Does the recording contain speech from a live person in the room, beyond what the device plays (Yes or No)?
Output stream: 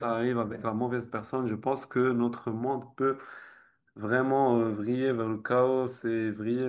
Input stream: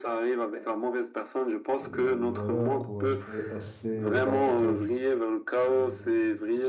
Yes